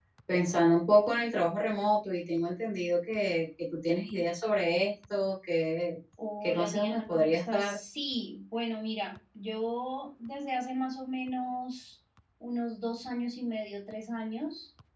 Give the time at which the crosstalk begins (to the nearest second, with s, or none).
6 s